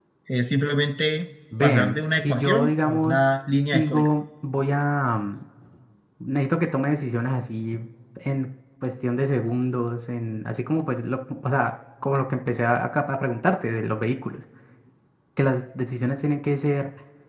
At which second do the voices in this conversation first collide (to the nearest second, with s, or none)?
2 s